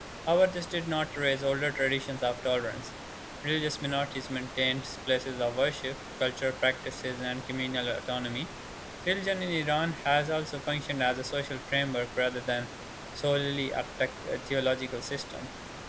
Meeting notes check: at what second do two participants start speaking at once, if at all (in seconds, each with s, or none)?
none